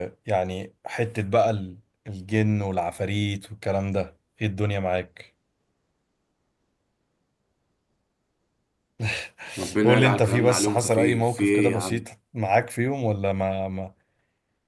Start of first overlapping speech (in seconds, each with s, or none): 9.8 s